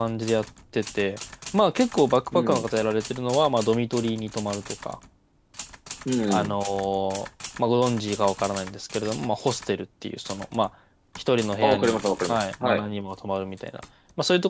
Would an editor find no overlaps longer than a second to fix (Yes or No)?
No